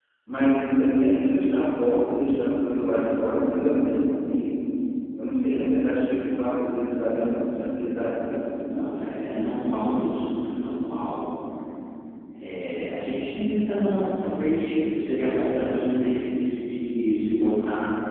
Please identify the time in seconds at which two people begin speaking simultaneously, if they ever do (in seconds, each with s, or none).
none